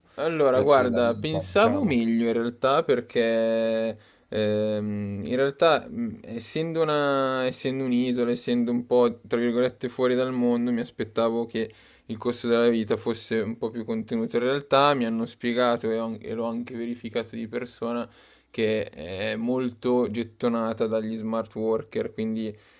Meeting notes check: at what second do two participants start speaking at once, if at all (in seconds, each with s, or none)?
0.5 s